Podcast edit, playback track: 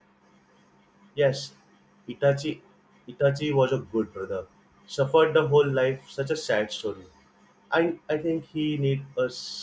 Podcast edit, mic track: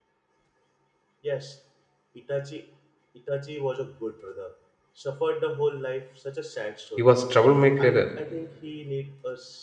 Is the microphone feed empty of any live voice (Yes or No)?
No